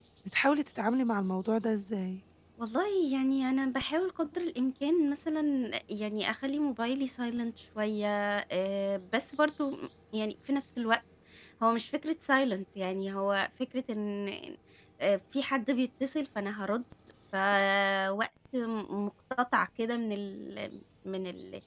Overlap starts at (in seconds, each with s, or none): none